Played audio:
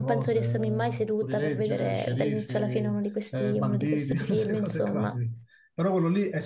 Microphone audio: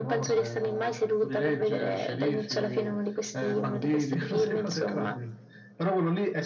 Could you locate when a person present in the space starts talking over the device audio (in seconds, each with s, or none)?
none